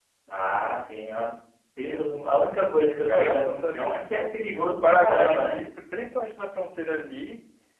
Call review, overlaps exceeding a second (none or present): present